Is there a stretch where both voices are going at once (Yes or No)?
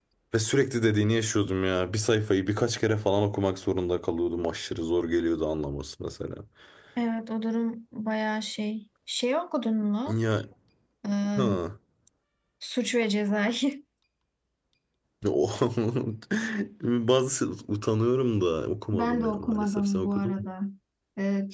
Yes